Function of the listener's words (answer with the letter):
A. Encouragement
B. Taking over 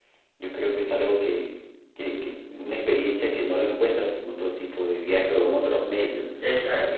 B